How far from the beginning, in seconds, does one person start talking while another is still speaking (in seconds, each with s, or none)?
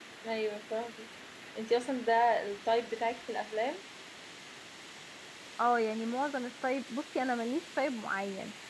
none